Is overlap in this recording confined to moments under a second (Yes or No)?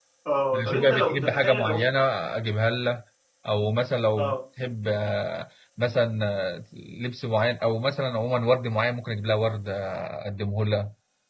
No